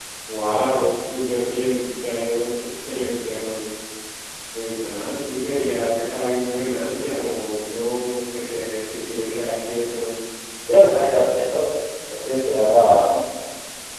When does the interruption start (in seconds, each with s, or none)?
none